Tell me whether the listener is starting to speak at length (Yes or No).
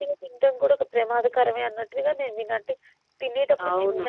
No